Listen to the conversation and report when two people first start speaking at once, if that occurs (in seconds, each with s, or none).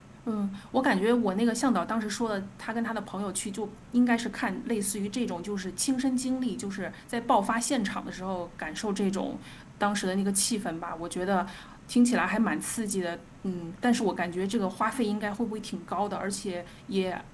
none